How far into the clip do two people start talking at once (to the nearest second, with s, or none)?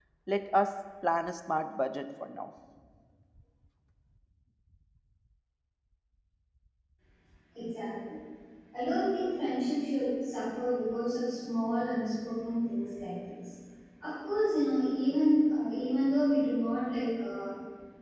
none